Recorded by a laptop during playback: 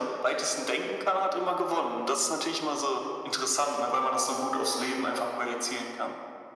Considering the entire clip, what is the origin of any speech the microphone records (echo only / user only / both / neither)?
echo only